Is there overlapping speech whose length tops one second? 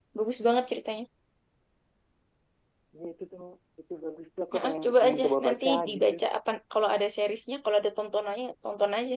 Yes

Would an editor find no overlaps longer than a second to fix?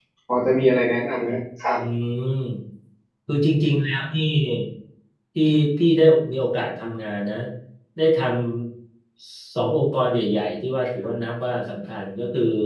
Yes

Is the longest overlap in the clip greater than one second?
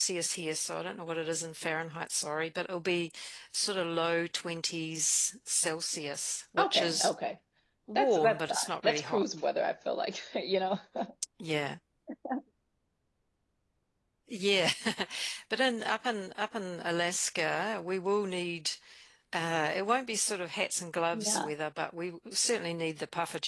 Yes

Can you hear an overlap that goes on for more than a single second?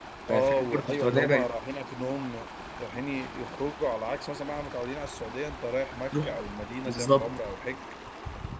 Yes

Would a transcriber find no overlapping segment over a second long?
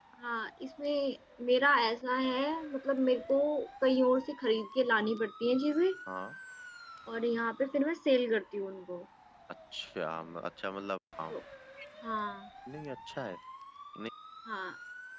Yes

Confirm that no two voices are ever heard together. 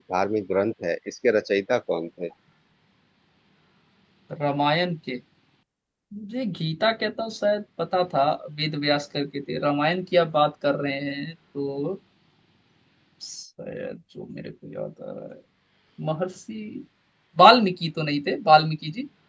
Yes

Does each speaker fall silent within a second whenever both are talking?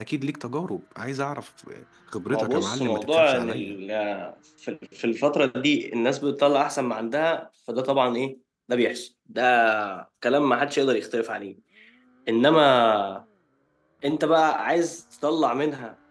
No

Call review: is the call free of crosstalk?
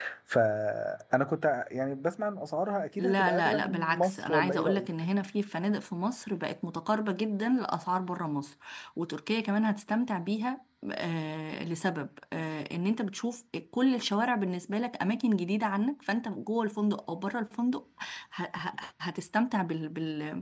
No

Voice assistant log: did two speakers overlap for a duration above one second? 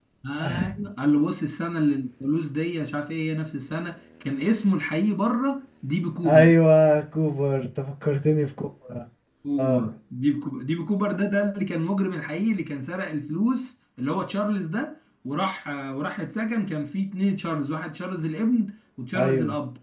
No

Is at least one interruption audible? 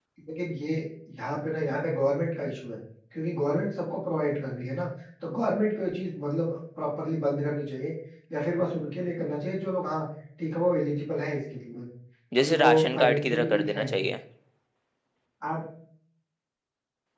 Yes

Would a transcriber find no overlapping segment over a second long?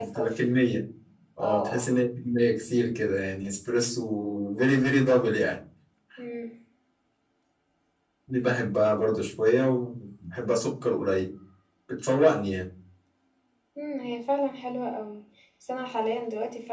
Yes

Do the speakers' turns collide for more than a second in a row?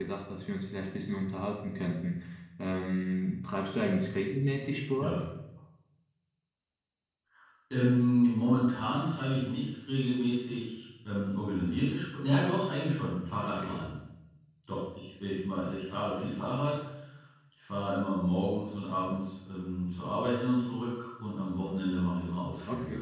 No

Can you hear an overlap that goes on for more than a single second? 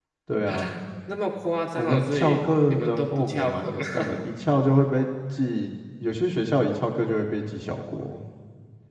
Yes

